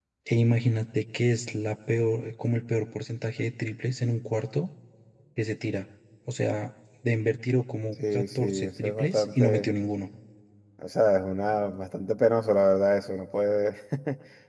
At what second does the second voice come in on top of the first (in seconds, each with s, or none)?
8.0 s